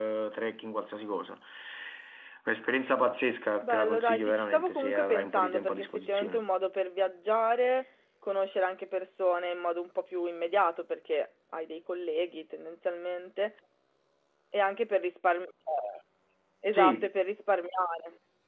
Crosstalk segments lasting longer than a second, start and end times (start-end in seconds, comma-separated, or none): 3.6-6.4